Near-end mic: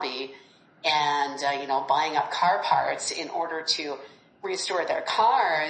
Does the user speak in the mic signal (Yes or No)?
No